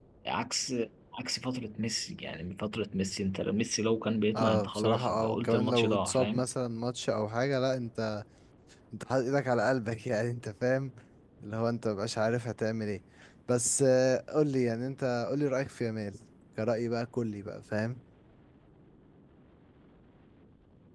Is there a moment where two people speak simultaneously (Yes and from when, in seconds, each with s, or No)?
Yes, from 4.3 s